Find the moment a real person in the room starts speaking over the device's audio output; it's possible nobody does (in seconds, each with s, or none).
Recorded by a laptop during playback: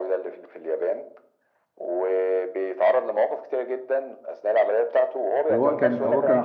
5.5 s